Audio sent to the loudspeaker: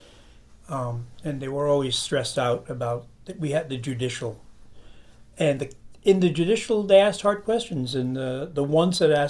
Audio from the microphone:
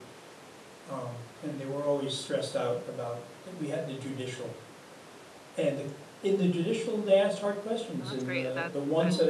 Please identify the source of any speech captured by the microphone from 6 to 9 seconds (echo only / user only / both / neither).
both